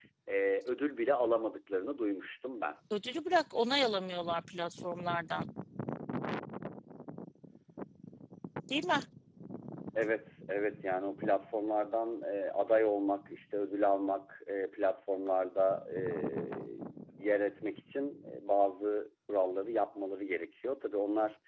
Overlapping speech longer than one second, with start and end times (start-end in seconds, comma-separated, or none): none